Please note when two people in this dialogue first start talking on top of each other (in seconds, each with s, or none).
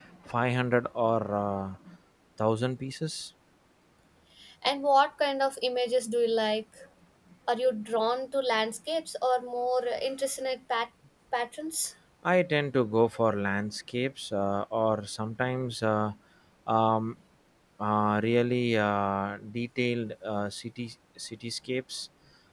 none